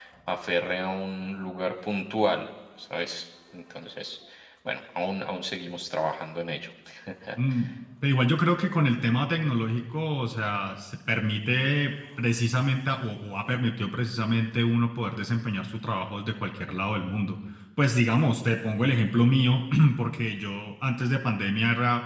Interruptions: none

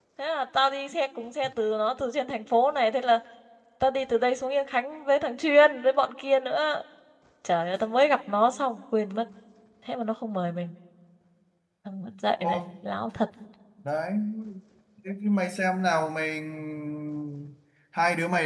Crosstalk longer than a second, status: none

